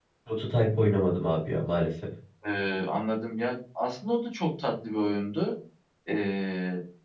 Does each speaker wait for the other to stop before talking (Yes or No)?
Yes